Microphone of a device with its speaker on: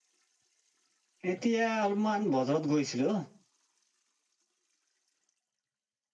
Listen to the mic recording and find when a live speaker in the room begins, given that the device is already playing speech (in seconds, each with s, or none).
1.3 s